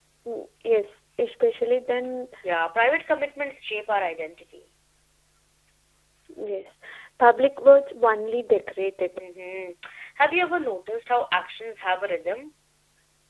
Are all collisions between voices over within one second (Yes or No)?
Yes